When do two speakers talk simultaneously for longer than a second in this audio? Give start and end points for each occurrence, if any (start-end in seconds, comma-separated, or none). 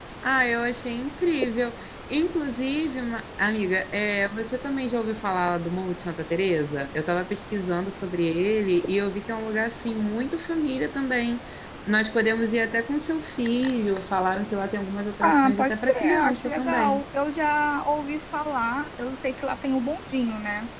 15.2-17.0